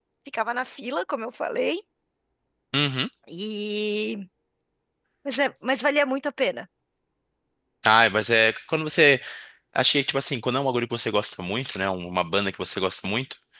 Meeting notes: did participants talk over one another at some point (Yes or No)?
No